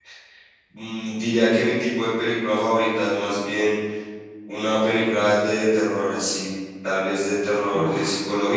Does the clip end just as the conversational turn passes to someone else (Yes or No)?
No